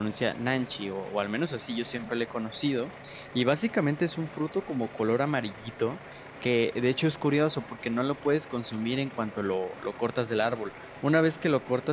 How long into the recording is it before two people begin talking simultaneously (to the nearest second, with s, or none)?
none